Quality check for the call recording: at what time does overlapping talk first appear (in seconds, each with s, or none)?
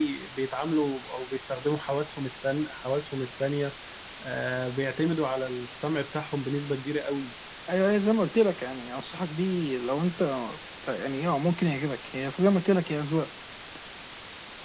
none